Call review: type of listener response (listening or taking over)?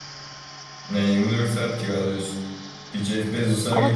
listening